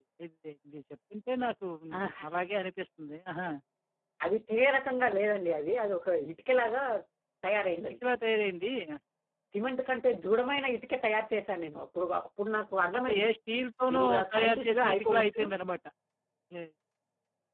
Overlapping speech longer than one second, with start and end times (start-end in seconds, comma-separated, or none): 13.9-15.4